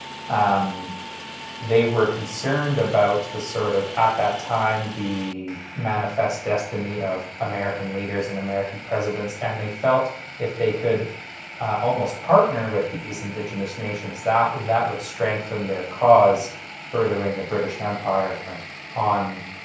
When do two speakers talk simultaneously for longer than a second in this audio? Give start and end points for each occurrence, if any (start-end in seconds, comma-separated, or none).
none